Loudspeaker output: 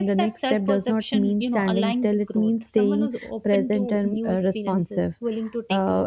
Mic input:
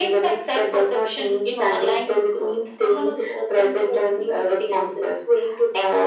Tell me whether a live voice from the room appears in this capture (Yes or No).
No